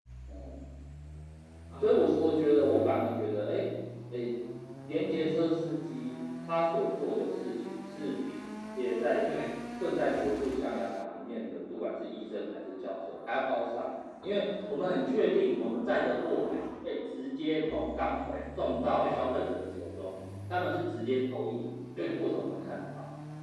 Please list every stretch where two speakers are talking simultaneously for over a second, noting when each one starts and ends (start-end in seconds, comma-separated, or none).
none